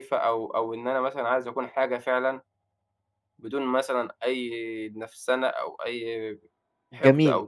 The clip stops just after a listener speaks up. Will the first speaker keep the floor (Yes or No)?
No